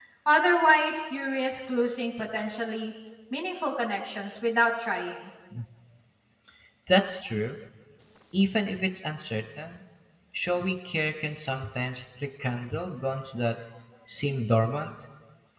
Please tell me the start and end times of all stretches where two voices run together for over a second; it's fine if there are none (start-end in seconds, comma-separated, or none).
none